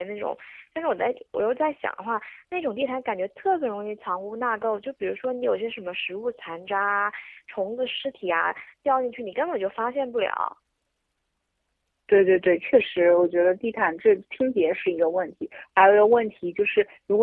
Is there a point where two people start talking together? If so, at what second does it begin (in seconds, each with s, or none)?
none